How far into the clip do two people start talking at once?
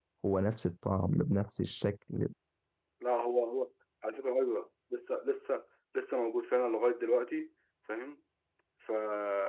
none

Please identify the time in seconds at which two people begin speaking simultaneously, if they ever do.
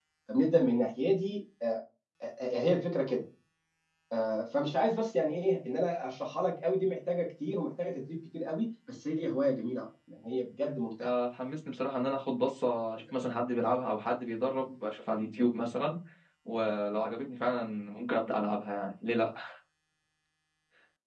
none

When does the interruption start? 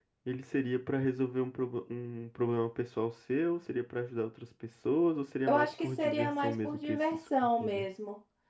5.5 s

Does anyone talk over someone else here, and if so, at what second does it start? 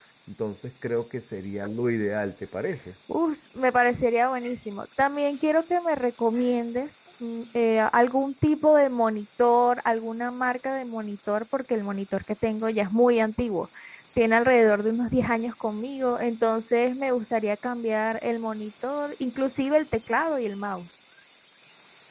none

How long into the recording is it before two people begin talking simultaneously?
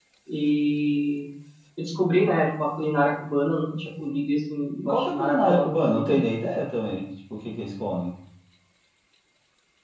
4.9 s

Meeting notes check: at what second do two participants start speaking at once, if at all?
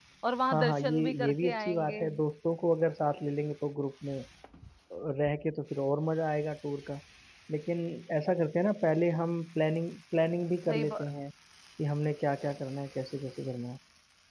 0.5 s

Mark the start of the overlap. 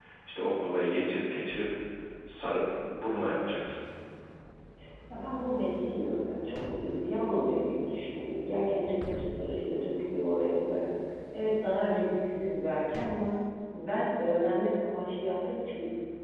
none

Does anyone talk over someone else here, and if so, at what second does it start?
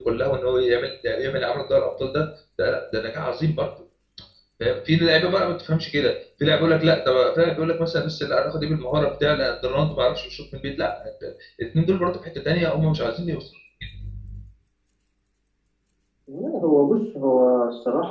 none

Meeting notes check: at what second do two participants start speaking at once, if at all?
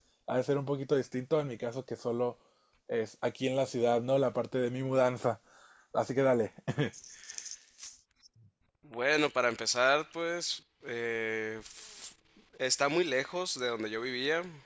none

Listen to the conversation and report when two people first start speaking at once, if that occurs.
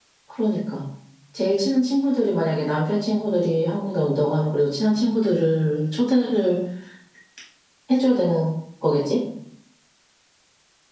none

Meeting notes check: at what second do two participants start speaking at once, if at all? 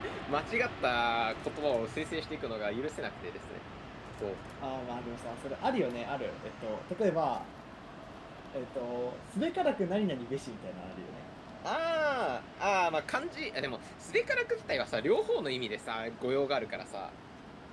none

